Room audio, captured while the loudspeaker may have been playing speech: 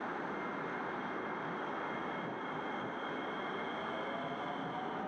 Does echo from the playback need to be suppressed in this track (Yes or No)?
No